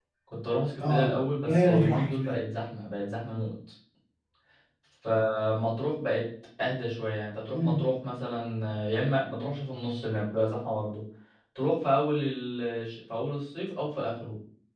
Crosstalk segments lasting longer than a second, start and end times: 0.8-2.3

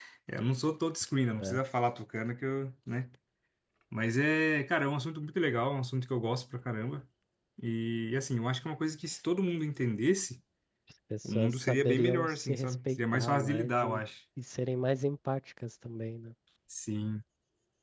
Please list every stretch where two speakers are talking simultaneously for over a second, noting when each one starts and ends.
11.2-14.0

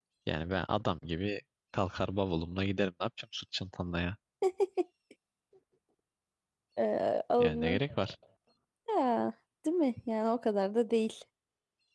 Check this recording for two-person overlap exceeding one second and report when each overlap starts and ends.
none

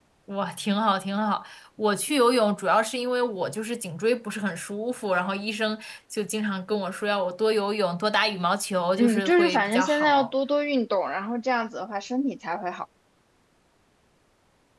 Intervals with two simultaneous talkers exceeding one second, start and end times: 9.0-10.3

